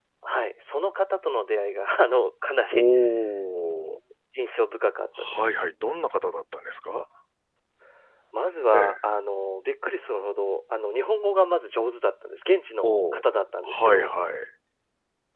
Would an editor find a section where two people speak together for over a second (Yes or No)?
No